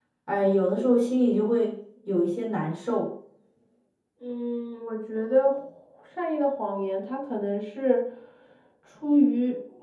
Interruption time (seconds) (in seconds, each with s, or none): none